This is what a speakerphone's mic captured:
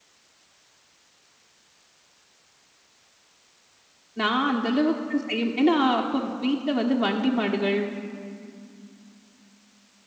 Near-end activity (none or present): present